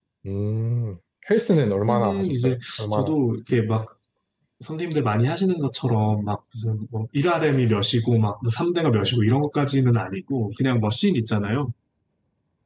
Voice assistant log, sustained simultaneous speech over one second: present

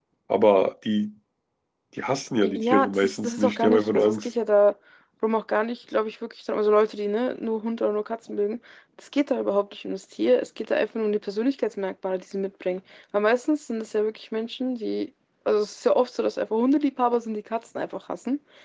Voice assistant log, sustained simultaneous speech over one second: present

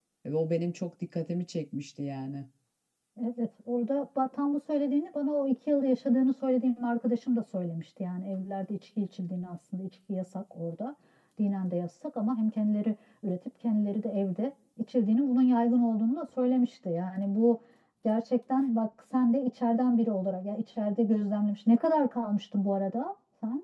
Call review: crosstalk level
none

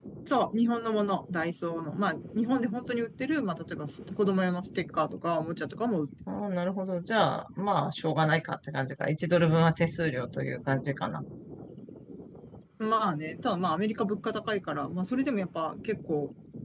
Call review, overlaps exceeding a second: none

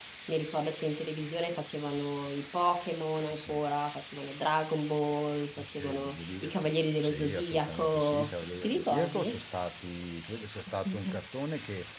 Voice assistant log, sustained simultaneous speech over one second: present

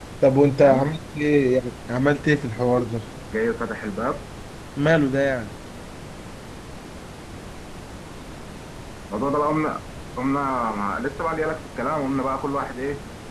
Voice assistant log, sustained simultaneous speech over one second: none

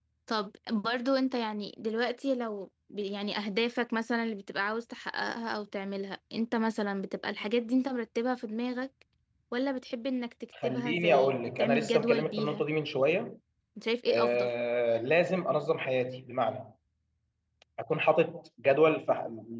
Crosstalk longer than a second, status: present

